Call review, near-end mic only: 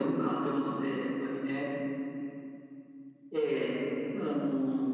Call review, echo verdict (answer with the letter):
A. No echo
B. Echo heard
B